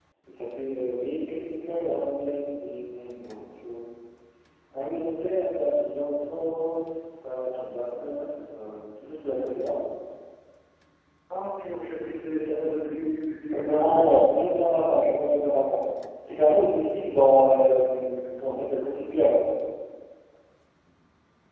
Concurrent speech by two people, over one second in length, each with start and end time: 13.5-15.2

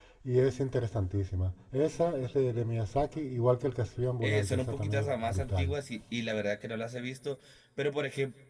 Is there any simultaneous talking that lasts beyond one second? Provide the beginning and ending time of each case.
4.2-5.7

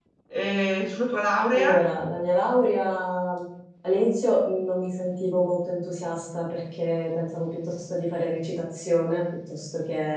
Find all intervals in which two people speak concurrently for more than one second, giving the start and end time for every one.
none

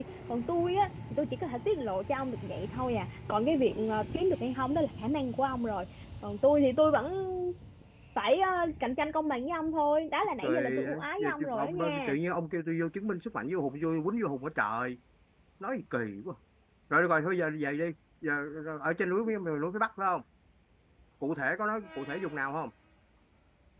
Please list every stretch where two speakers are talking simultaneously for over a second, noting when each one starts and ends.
10.4-12.2

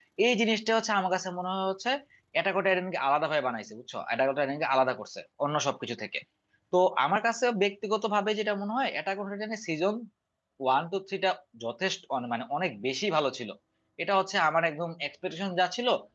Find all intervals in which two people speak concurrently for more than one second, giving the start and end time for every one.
none

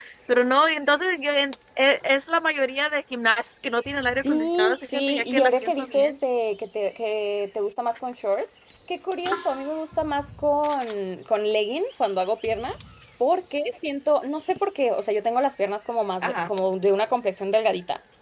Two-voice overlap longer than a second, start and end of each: 4.3-6.1

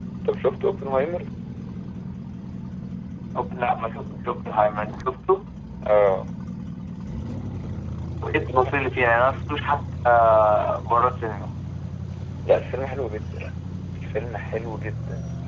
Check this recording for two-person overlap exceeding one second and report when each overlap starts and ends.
none

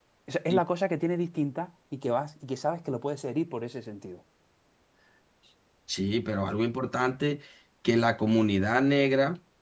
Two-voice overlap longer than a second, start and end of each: none

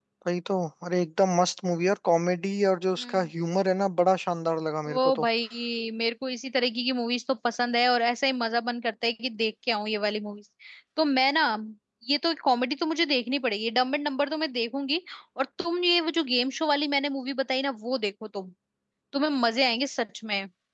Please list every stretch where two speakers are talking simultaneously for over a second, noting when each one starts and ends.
none

